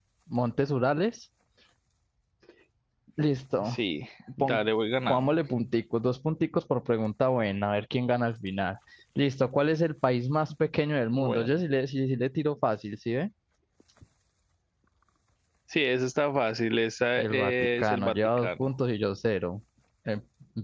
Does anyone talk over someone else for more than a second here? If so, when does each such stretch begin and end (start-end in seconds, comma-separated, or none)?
17.2-18.7